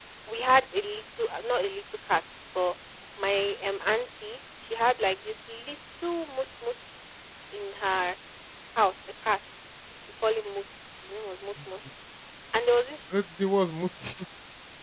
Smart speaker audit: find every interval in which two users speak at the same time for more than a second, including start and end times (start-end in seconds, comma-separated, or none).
none